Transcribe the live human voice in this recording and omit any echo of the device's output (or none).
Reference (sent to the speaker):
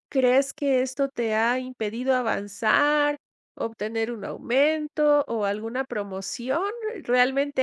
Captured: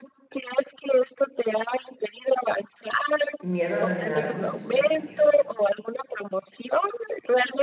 Miedo a no llenar mis expectativas.